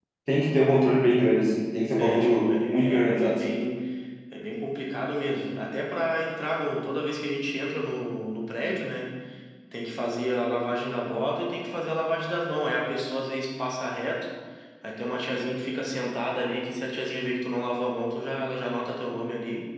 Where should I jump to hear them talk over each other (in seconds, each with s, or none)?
2.0 s